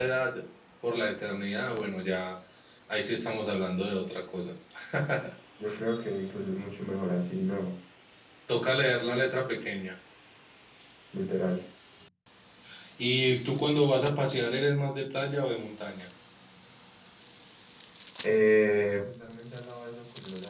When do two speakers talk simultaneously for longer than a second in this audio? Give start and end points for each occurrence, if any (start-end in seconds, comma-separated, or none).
none